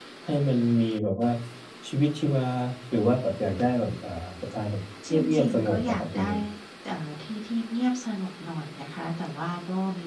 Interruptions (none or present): present